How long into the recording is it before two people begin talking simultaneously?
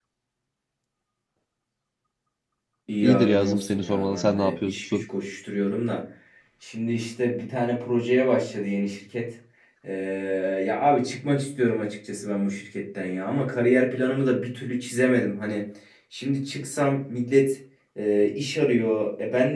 3.0 s

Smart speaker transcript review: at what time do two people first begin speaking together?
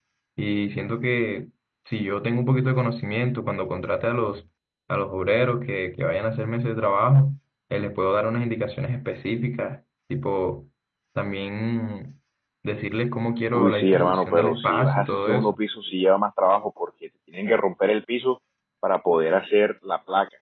13.5 s

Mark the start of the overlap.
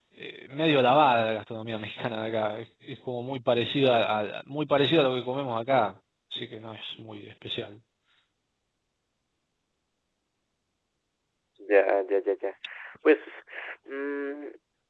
none

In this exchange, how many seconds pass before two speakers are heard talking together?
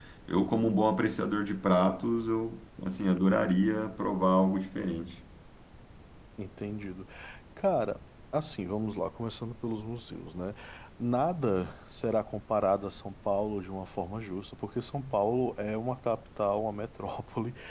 none

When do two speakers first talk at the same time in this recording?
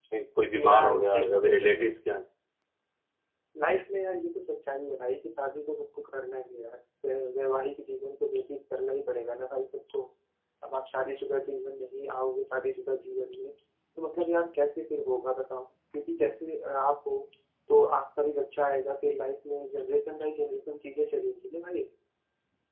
0.5 s

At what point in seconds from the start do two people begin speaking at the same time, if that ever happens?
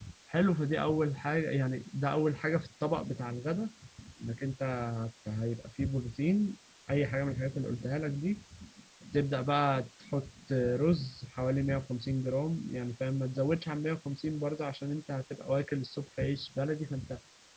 none

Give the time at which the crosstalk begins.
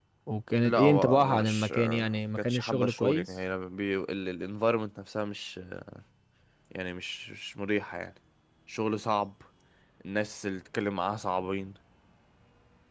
0.6 s

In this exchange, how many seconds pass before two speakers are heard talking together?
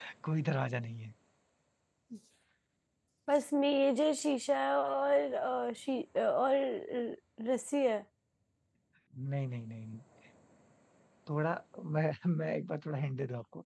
none

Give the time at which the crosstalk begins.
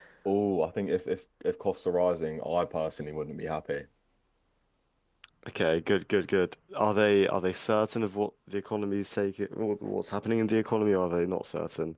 none

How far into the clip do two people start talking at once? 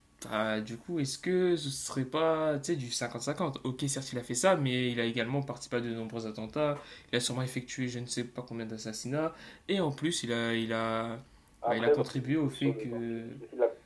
11.7 s

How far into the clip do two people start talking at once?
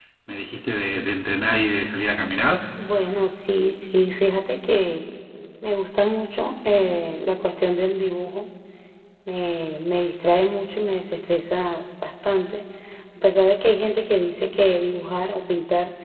none

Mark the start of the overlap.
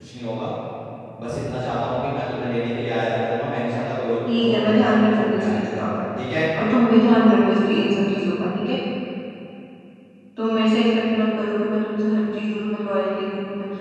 4.3 s

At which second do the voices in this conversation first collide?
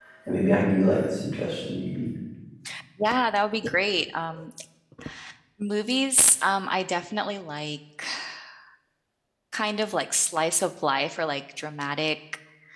none

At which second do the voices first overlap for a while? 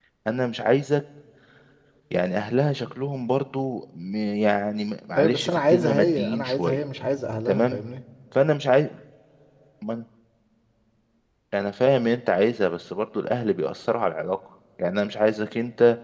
5.2 s

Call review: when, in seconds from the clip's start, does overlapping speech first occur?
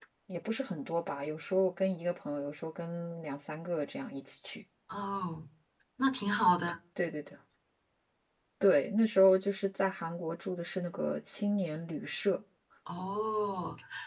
none

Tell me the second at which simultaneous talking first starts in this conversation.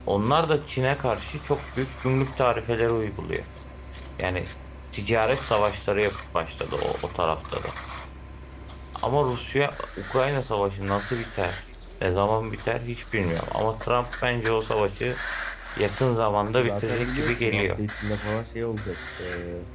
16.6 s

